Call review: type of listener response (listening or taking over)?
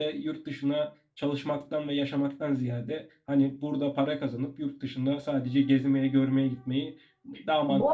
taking over